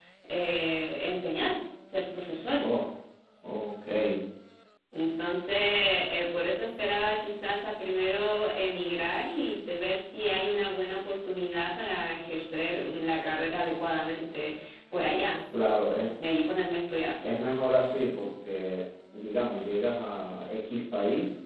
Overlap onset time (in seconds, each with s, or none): none